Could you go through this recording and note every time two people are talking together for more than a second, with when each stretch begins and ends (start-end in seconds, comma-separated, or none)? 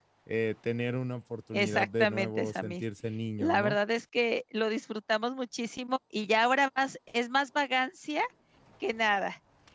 1.5-2.8